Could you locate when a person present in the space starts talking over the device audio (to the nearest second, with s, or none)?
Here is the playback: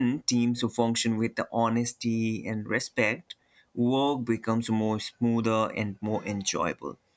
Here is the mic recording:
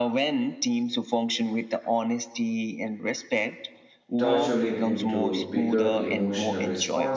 4 s